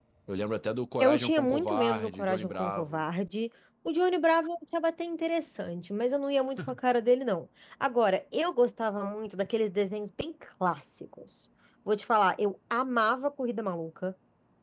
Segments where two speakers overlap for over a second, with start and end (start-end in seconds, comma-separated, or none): 1.0-3.0